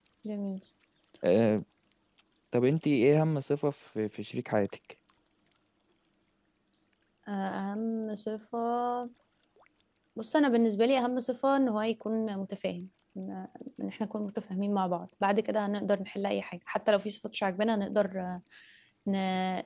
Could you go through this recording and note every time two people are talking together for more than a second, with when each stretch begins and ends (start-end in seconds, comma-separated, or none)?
none